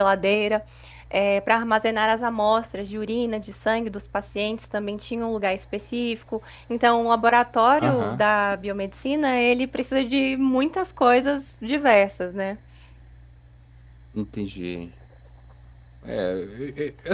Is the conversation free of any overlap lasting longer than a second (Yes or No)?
Yes